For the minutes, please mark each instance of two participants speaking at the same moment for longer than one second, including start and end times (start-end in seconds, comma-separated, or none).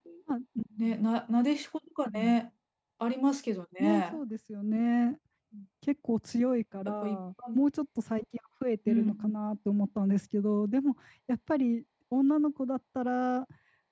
none